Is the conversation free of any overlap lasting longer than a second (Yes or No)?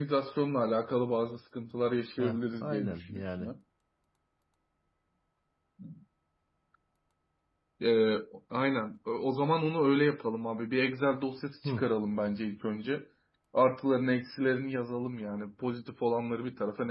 No